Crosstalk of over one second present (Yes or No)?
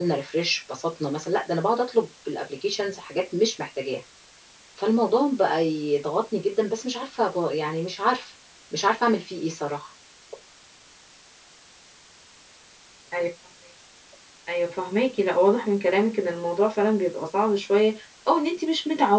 No